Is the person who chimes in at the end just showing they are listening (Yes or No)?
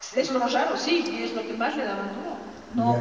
Yes